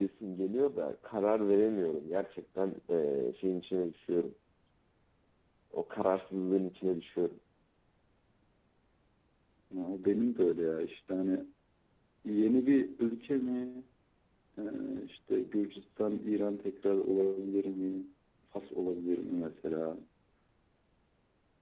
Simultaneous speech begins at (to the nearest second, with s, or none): none